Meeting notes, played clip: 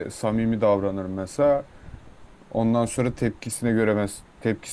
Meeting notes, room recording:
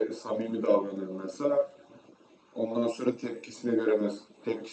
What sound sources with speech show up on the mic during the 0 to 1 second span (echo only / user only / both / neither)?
echo only